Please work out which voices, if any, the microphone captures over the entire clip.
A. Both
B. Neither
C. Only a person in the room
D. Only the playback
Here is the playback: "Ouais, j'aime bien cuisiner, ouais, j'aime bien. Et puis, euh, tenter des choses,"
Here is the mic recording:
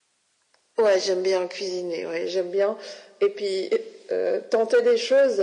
D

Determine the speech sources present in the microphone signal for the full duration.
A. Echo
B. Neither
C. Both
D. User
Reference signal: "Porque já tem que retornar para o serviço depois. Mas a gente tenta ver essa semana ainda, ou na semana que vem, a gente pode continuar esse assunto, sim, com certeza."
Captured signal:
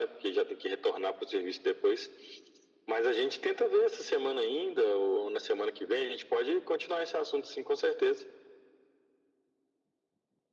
A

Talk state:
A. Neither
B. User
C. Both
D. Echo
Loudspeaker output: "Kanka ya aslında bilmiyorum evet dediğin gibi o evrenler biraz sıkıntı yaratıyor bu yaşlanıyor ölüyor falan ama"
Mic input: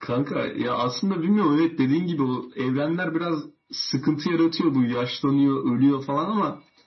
D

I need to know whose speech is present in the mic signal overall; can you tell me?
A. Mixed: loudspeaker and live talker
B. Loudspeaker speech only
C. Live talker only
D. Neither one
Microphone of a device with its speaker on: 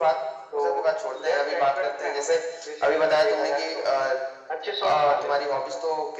B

